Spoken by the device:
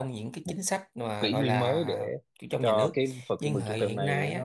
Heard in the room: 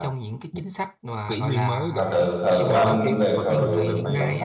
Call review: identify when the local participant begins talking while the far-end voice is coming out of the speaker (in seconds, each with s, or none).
2.0 s